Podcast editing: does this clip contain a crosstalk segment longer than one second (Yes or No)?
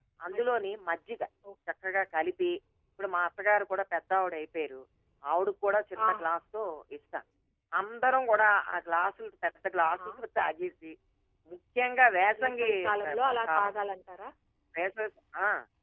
Yes